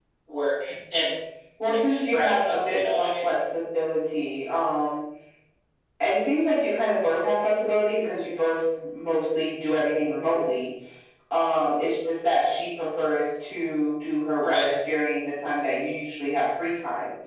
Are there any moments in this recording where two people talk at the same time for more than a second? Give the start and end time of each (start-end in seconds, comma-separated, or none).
1.7-3.2